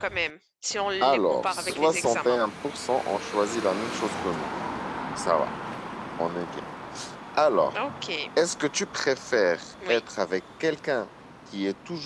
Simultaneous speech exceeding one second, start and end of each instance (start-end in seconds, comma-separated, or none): 1.0-2.4